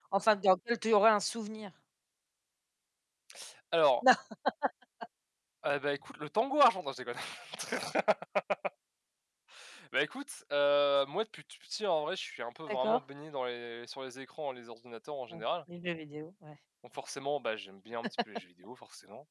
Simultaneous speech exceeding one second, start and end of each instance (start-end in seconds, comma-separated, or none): none